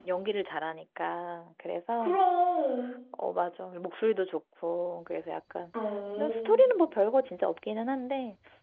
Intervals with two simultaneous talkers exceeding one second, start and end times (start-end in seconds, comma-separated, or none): none